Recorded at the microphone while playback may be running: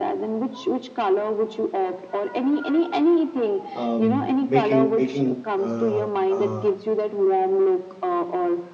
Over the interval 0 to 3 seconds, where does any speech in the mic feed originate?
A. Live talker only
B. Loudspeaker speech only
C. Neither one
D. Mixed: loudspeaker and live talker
B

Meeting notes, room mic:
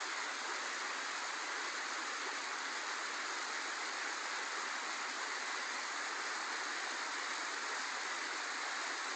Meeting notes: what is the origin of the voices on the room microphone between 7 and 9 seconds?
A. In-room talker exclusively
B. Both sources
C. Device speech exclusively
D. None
D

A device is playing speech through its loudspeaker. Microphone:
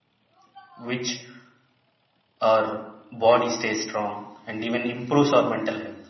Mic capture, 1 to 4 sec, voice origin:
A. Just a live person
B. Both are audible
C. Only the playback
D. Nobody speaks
A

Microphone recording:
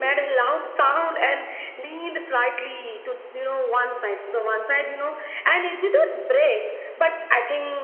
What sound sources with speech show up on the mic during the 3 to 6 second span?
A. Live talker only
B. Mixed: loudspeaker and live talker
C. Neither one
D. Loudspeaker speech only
D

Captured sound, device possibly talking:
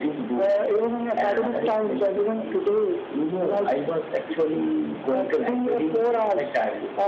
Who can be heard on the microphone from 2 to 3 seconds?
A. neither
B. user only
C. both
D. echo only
D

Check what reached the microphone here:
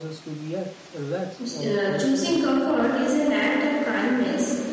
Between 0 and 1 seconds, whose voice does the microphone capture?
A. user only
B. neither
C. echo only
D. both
C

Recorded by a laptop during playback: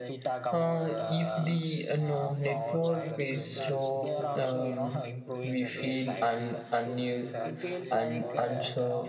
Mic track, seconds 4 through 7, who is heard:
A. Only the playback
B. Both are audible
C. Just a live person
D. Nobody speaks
B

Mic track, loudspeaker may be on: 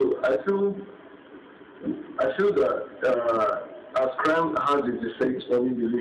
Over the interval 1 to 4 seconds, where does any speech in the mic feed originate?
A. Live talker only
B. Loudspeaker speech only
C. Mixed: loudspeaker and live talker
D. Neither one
B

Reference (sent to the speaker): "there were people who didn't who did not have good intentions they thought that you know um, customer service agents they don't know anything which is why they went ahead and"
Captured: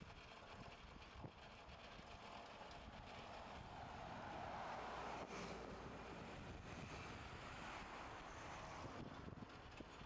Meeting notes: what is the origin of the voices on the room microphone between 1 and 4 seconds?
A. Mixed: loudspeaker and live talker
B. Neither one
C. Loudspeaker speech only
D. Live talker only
B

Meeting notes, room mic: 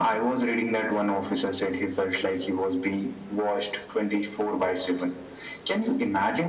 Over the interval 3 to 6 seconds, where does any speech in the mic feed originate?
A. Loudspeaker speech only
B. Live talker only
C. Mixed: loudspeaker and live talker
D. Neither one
A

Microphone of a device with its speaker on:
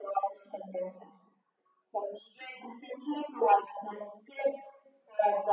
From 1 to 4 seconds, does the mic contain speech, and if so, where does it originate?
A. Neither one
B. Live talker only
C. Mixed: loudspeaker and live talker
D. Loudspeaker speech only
D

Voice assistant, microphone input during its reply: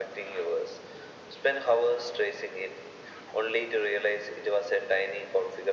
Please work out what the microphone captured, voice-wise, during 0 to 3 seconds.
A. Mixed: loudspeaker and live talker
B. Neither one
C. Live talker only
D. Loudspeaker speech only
D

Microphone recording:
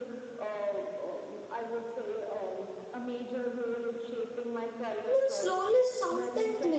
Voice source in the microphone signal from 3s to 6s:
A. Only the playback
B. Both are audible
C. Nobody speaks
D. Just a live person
B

